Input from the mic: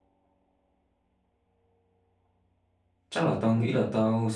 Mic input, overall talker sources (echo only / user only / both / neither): user only